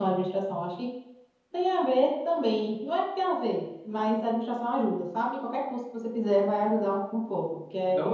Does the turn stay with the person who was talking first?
No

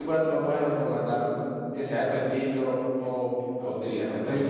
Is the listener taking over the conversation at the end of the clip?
Yes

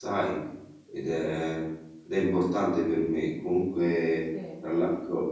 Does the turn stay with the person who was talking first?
Yes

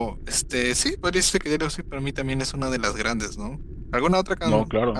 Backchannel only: Yes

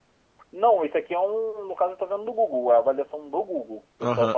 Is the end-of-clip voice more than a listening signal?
Yes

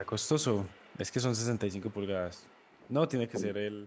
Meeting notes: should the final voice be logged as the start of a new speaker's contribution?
No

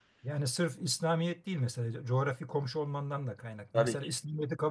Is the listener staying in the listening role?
Yes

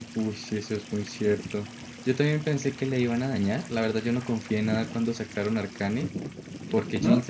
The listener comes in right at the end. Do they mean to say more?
No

